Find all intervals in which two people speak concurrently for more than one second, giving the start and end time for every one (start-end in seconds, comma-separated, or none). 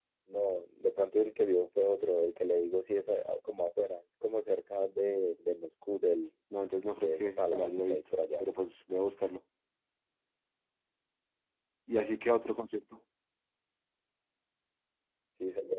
7.0-8.4